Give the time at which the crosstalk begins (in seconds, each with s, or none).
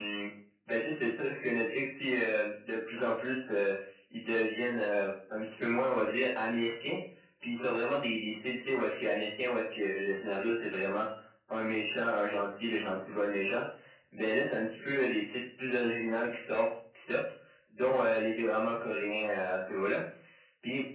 none